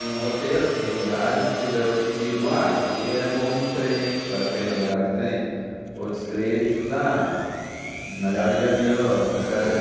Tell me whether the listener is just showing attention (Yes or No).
No